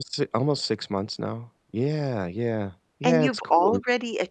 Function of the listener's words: taking over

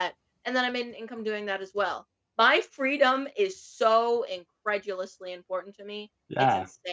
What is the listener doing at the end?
taking over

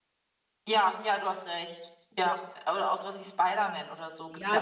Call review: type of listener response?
taking over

